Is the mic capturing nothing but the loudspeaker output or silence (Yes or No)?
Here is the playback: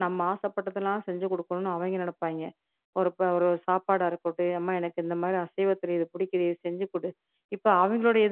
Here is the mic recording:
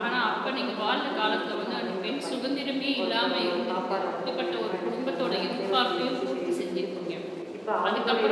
No